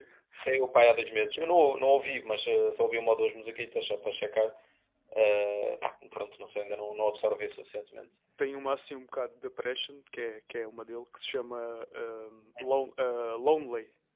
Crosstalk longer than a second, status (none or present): none